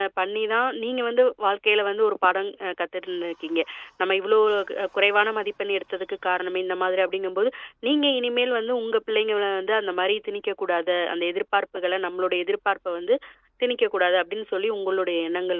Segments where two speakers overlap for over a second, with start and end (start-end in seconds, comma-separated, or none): none